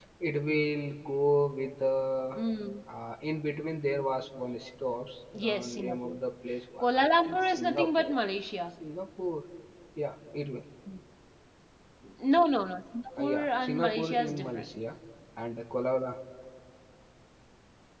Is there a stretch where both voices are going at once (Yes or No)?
Yes